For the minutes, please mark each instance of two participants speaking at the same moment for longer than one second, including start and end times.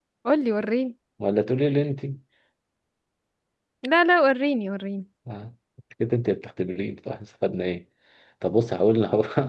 none

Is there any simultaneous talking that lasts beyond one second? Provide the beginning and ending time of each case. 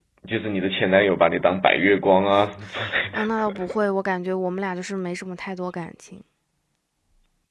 none

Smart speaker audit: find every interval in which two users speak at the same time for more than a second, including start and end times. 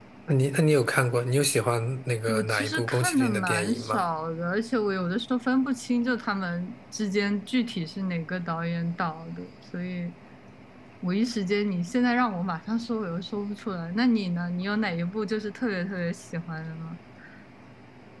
2.3-4.0

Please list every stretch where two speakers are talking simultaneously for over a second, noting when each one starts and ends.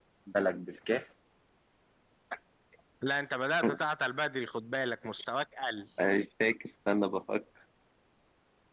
none

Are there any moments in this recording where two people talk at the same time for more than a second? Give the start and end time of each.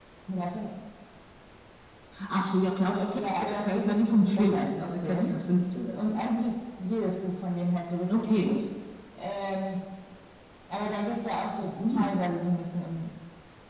3.1-5.4

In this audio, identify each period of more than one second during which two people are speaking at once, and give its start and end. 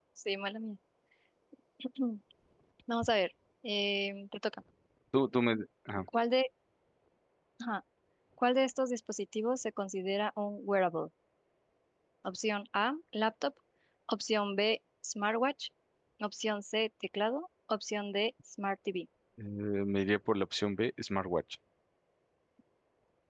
none

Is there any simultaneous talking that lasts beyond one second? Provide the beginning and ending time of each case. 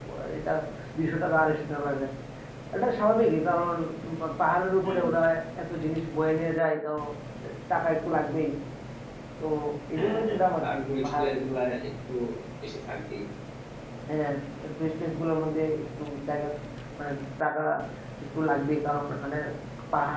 9.9-11.3

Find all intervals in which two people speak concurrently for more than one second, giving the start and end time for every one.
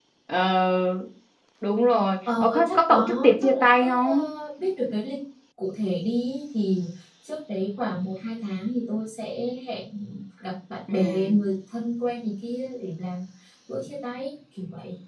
2.4-4.2

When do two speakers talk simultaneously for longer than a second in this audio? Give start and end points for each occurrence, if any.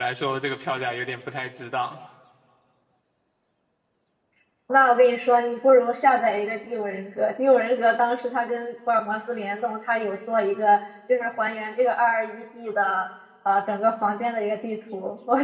none

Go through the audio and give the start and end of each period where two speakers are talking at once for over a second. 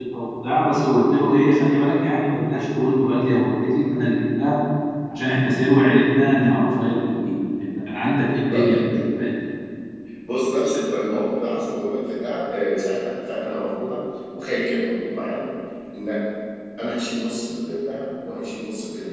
none

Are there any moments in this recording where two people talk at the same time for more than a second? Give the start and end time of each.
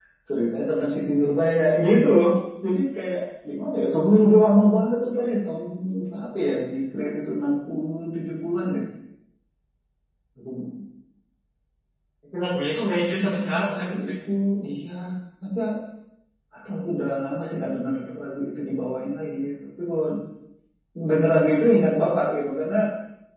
12.9-14.1

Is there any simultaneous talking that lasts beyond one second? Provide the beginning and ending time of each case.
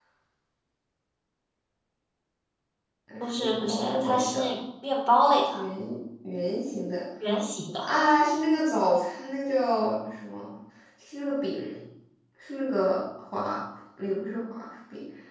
3.2-4.5

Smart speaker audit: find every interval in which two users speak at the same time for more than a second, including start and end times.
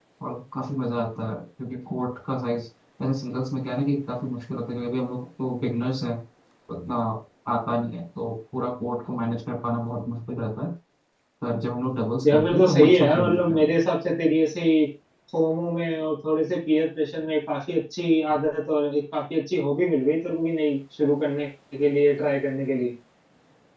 12.3-13.6

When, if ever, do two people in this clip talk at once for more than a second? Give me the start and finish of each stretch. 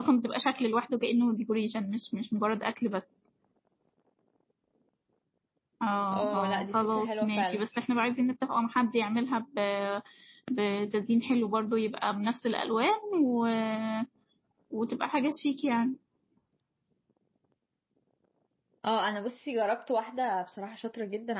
6.1-7.6

